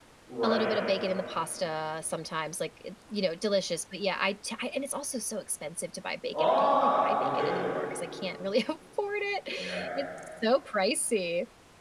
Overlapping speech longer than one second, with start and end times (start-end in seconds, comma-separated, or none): 6.3-7.6